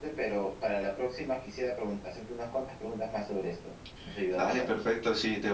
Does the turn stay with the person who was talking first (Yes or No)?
No